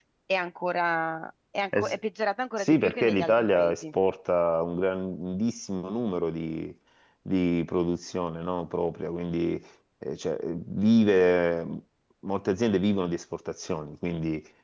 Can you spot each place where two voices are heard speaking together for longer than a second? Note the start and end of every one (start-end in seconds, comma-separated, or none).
2.6-3.8